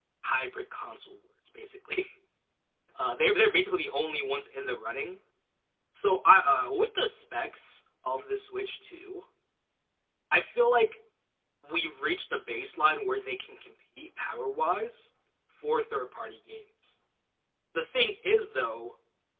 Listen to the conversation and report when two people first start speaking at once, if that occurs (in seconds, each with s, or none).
none